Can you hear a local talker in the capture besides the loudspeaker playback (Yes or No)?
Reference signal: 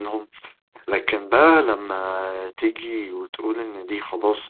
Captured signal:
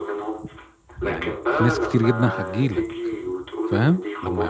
Yes